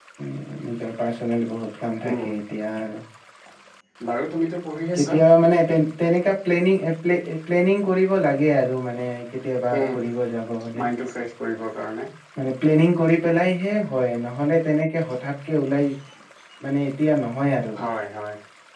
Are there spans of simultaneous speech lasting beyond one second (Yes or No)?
No